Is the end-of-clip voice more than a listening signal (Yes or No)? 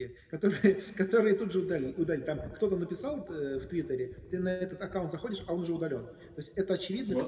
No